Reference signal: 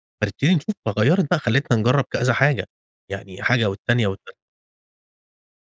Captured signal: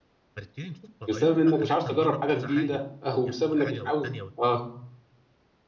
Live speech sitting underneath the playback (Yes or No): No